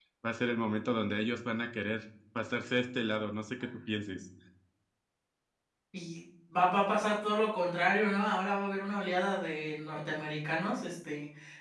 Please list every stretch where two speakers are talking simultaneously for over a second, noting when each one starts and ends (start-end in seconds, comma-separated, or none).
none